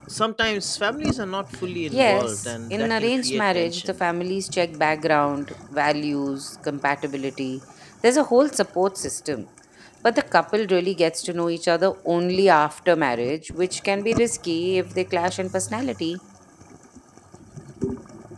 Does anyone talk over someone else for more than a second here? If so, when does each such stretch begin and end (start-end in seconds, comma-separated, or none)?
1.9-4.0